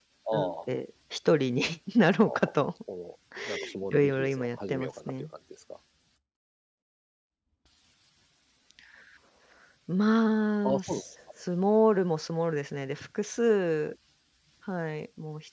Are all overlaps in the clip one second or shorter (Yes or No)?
No